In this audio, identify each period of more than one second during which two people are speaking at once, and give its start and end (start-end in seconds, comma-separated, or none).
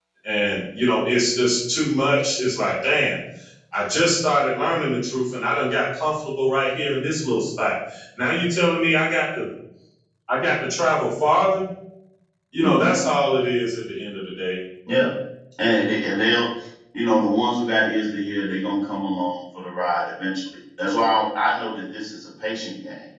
none